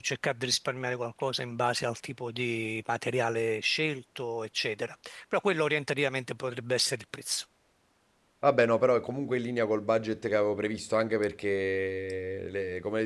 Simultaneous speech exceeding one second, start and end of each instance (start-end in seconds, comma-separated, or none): none